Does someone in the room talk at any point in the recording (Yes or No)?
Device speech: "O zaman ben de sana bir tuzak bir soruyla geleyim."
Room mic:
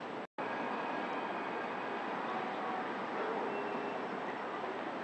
No